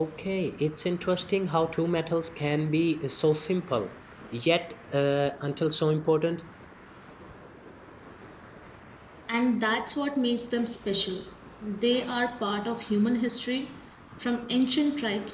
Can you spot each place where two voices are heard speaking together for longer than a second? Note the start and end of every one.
none

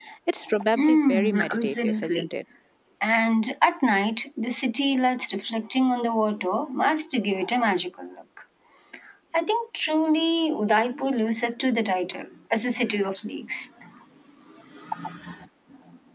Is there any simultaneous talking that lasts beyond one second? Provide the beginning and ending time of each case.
0.8-2.2

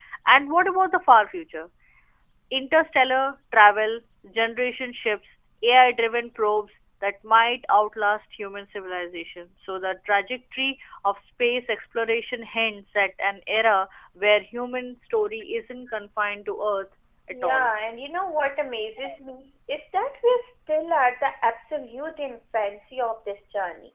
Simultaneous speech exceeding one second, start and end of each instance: none

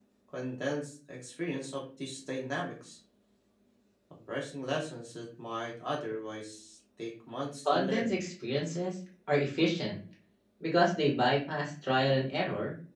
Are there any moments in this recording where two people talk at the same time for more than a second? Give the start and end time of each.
none

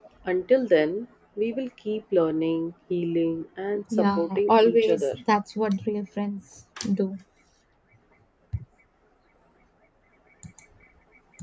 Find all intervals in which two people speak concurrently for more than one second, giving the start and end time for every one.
3.9-5.2

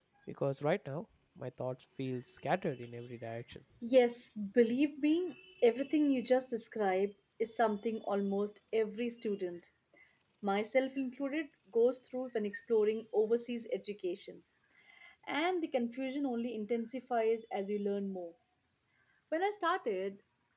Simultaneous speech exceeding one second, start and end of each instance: none

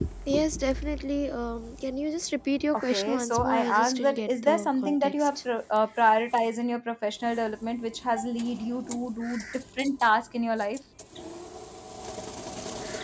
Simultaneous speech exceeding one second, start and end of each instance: 2.8-5.3

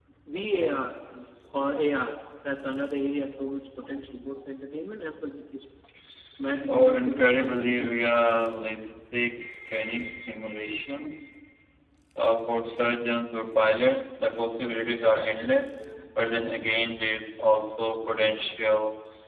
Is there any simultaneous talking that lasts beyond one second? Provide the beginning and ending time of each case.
6.6-8.1

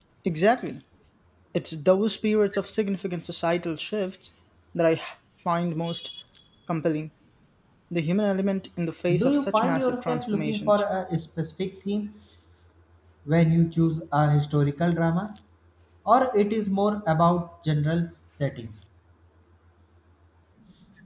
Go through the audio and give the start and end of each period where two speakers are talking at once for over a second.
9.1-10.8

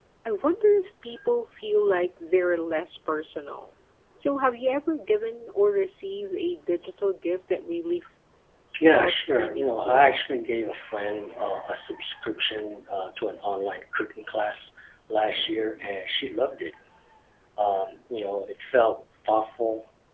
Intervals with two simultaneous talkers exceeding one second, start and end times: 8.9-10.2

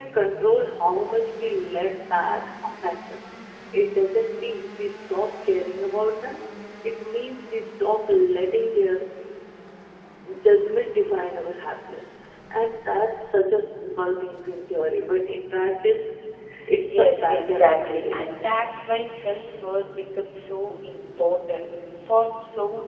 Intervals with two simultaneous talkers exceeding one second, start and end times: 16.8-18.2

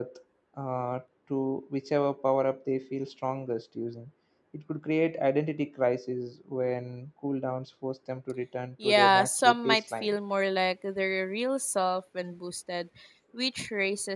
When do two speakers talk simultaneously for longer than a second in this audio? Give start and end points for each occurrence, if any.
8.8-10.1

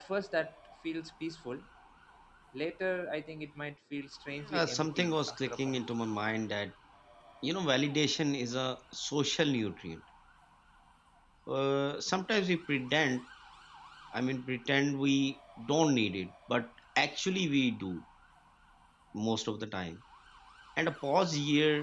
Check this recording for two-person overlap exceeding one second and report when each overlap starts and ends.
4.4-5.8

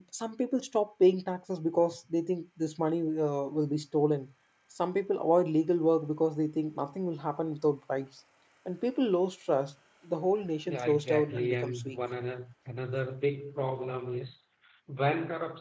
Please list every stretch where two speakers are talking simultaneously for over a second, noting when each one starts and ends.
10.6-12.0

